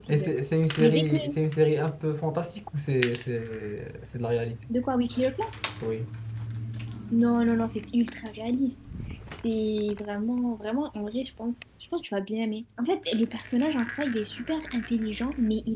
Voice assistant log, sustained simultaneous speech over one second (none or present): none